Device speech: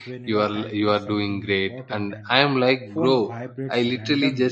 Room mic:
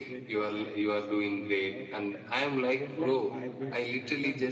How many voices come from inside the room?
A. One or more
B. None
A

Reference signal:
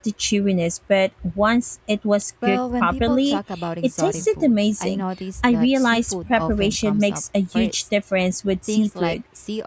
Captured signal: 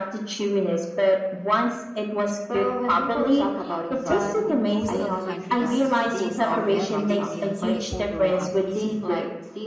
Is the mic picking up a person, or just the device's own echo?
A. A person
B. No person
A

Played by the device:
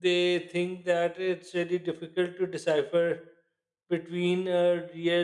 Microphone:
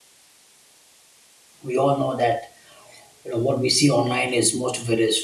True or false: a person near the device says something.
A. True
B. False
A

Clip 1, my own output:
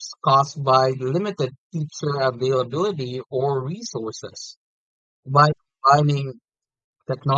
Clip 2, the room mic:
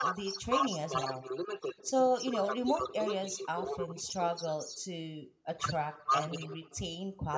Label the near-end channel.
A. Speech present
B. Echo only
A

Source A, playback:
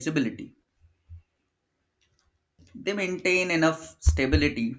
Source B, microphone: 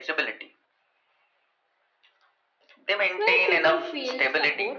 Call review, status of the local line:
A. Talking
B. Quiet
A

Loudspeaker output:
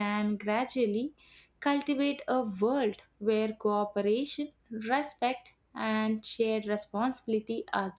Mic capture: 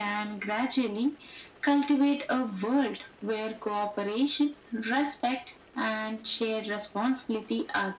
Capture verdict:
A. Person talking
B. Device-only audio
B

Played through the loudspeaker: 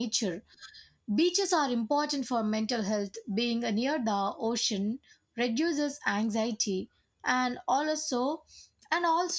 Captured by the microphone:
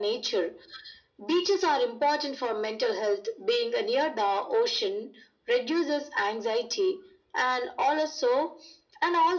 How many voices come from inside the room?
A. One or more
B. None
B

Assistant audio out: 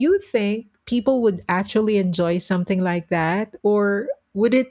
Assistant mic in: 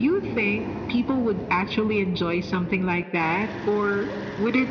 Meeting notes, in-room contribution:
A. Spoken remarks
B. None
B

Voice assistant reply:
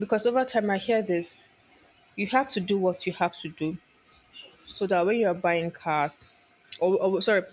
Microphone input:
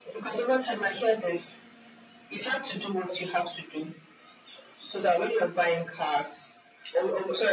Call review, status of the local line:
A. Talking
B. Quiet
B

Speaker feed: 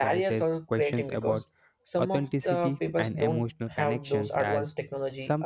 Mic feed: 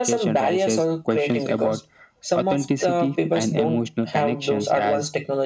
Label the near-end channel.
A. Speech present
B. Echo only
B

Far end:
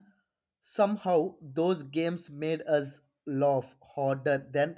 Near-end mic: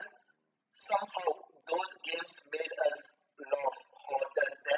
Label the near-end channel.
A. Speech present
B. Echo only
B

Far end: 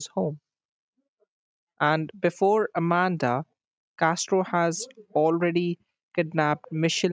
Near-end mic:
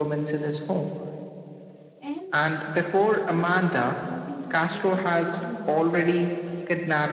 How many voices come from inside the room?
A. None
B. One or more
B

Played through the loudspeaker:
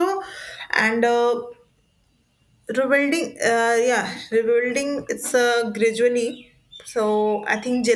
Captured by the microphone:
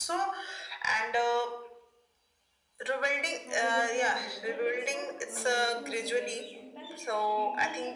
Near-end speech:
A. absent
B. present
B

